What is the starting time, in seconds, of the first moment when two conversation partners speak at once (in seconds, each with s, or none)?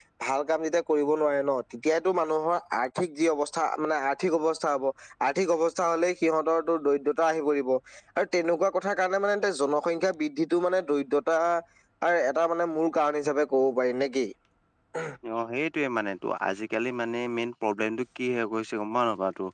none